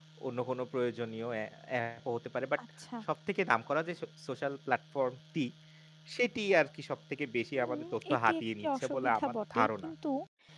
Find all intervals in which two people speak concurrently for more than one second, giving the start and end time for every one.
7.5-9.9

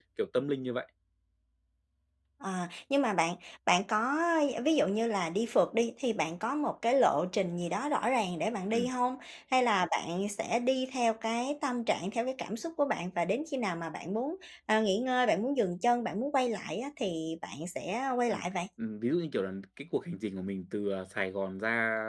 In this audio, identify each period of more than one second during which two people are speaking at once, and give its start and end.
none

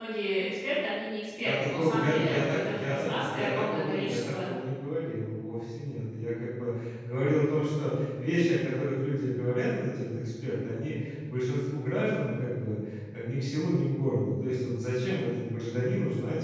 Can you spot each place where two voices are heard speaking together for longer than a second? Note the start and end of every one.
1.4-4.4

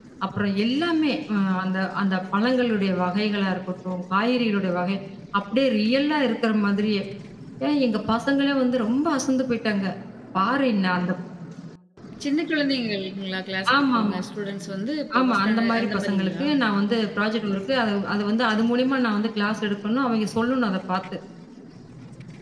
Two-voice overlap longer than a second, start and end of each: 15.2-16.4

